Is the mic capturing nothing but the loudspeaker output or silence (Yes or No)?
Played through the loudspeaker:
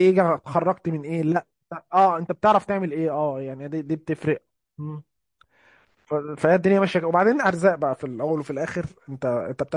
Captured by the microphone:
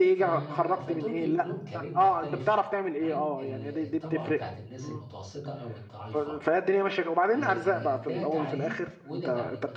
No